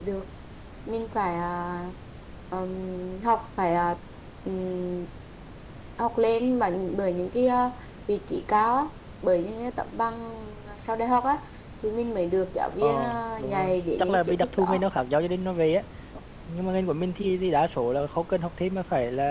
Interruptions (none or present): present